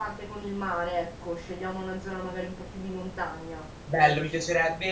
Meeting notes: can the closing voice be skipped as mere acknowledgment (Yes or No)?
No